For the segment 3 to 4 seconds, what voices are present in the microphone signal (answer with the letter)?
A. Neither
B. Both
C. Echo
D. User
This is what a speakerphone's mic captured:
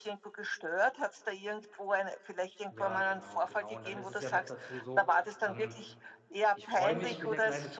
B